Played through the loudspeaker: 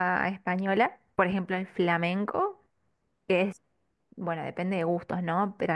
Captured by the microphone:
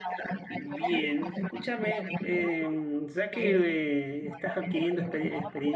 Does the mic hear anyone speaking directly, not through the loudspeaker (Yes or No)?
Yes